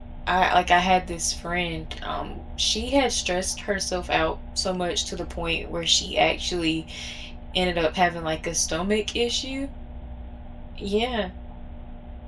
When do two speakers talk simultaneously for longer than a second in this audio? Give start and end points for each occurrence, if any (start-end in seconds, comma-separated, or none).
none